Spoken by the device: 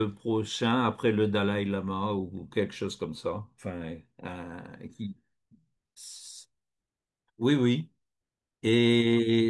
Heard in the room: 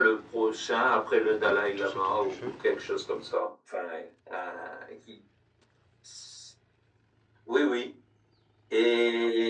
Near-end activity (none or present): present